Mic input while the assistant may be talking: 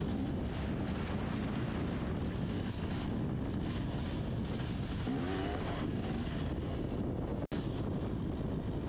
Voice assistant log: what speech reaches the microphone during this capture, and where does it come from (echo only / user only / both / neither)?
neither